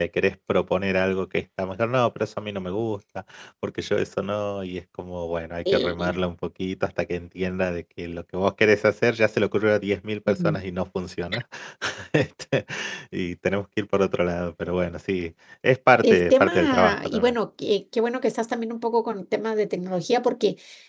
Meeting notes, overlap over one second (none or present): present